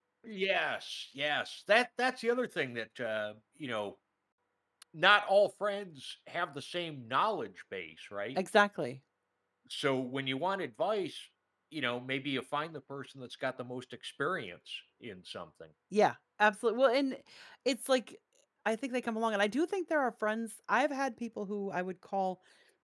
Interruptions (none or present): none